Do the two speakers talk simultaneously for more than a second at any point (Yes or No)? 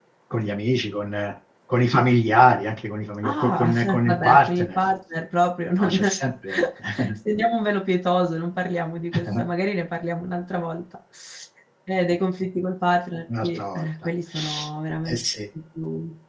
Yes